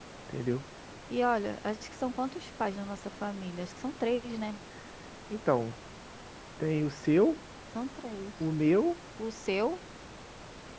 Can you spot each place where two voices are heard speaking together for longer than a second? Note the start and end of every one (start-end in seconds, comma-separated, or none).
none